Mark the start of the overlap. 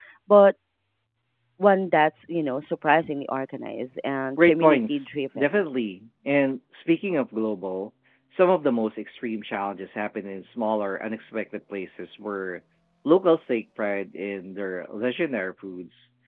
4.4 s

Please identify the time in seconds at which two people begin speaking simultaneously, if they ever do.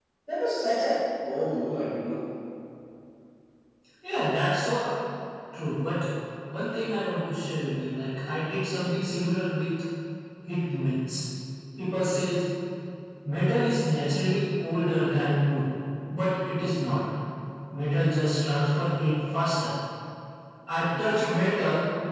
none

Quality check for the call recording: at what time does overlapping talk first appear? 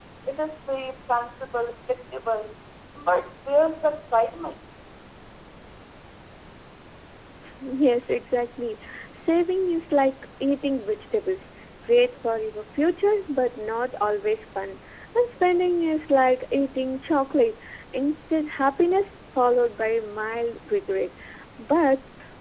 none

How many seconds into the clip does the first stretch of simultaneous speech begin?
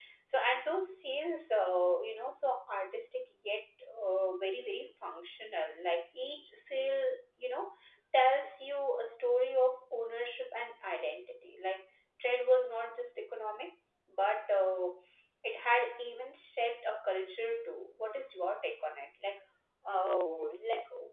none

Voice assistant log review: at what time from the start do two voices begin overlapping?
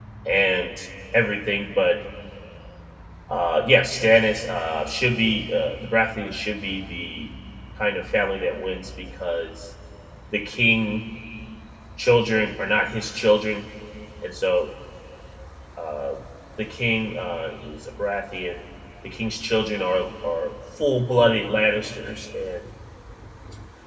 none

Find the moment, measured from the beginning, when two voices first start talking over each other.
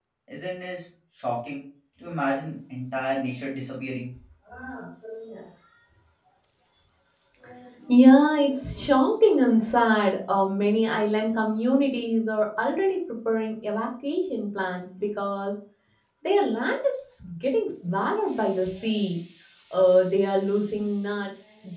none

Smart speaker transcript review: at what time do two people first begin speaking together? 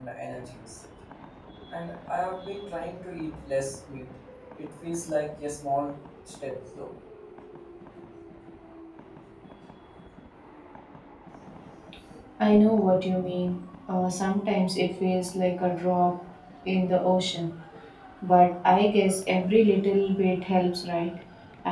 none

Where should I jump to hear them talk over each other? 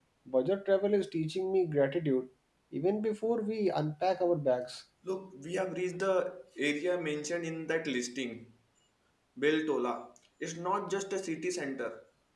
none

